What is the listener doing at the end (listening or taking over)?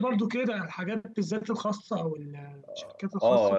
taking over